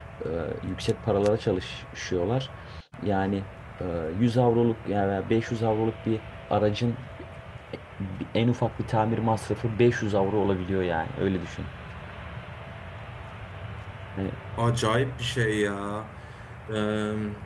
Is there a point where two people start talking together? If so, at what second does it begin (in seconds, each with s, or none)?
none